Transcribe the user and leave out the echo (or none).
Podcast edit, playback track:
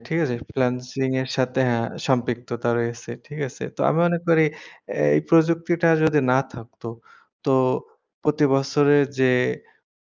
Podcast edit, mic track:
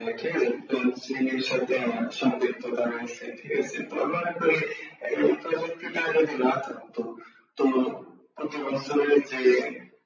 none